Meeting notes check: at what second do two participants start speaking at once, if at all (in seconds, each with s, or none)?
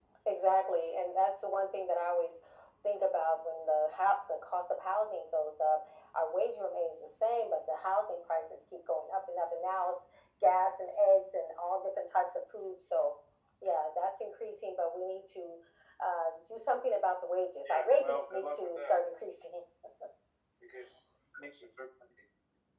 17.6 s